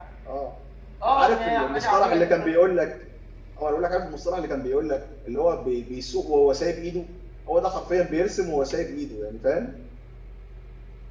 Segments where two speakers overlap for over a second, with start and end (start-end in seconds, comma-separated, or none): 1.1-2.5